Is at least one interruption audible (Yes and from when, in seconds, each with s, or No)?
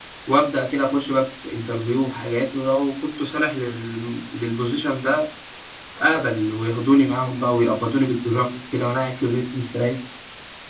No